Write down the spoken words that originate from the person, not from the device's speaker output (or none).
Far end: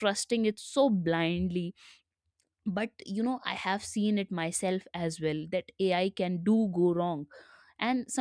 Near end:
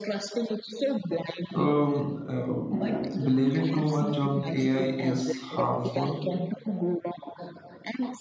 So, um, uh, believing too much on AI is harmful